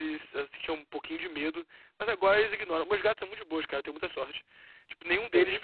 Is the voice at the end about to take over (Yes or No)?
No